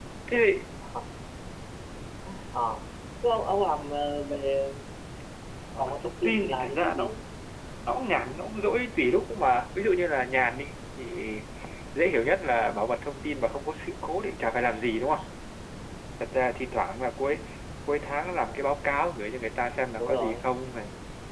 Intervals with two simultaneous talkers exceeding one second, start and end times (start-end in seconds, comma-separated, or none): 5.8-7.2